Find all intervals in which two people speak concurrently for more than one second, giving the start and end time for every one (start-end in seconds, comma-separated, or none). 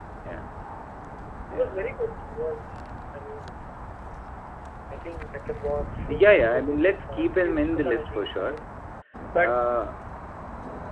6.0-8.6